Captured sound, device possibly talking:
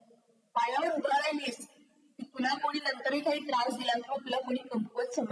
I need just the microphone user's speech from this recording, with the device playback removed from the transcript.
none

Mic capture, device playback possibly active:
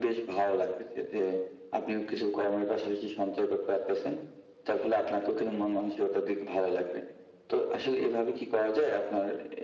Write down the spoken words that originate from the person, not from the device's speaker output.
none

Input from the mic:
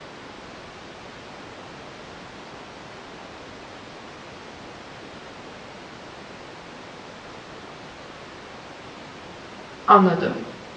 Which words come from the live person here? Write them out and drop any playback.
Anladım.

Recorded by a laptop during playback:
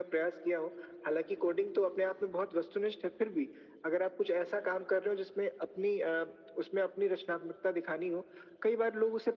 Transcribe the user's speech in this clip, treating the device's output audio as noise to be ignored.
none

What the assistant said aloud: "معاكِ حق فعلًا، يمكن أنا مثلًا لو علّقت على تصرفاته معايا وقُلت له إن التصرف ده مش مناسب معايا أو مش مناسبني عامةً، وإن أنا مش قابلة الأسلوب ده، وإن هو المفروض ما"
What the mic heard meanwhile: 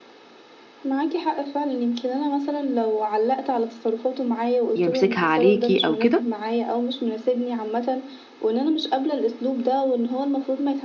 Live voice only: يمسكها عليكِ أو كده،

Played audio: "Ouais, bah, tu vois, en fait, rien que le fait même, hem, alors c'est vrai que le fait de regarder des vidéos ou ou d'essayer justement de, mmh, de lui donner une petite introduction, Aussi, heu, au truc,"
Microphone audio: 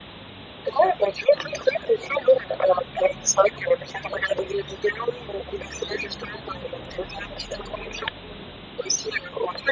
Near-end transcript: none

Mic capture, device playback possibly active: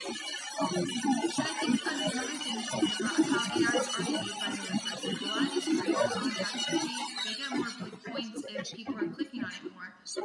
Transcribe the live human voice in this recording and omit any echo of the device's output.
And I think an- another thing to think about is how AI is already made by another person. And a lot of these creators on ChatGPT, they get more like points if people are clicking on it more.

